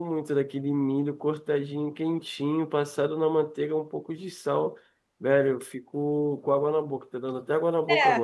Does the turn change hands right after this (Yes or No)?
Yes